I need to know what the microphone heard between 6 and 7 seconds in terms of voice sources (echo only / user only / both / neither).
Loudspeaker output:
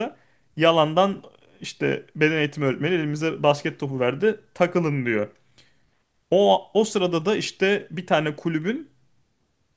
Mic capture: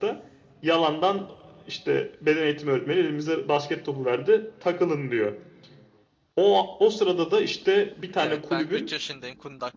echo only